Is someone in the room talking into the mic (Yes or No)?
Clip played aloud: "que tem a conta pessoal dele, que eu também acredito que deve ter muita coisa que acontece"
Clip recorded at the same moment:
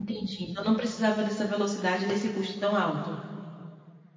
Yes